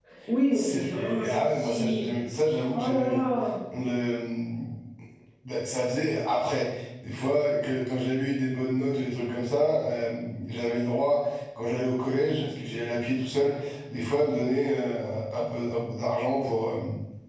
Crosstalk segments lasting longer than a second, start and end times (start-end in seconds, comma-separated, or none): 0.5-2.1